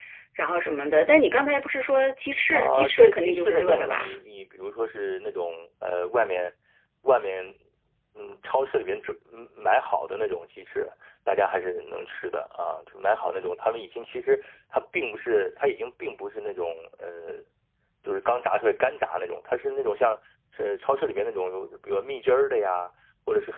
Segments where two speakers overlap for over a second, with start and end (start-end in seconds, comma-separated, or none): 2.5-4.2